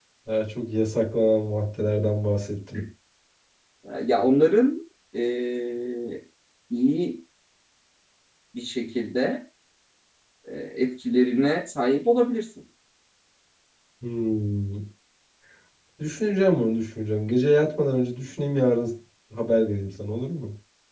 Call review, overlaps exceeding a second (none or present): none